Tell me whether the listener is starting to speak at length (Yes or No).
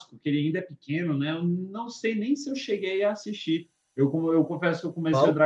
No